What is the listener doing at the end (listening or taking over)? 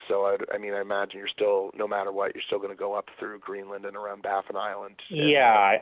taking over